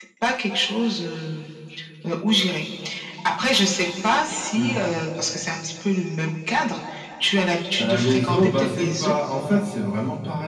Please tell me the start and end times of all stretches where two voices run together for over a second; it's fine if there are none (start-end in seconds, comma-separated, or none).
7.8-9.2